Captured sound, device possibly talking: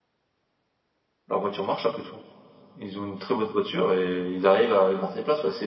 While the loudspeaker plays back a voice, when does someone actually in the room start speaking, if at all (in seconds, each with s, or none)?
1.3 s